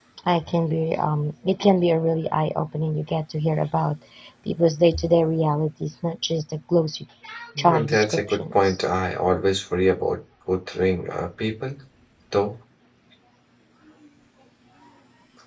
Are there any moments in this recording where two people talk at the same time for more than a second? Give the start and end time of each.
7.6-8.8

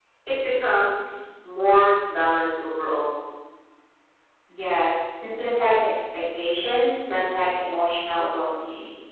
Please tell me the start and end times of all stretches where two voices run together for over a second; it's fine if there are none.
none

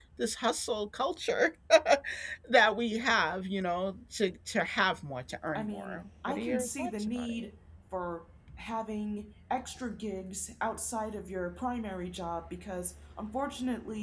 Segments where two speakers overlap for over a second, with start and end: 5.6-7.4

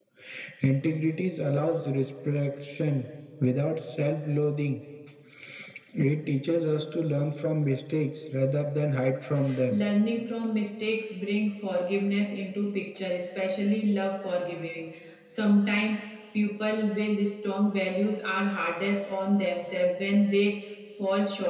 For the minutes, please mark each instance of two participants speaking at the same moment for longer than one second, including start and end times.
none

